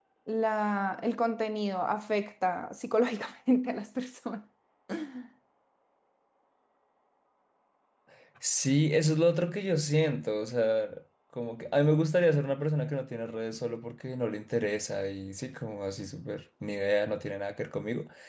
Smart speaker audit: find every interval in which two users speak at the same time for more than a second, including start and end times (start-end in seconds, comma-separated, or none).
none